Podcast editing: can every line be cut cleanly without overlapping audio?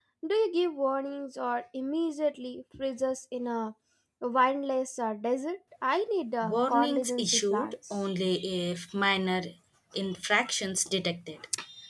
No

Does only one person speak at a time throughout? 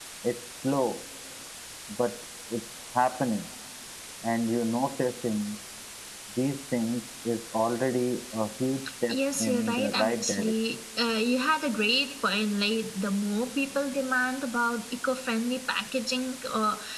No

